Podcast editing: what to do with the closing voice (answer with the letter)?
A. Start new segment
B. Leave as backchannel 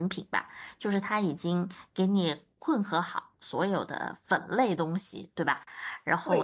B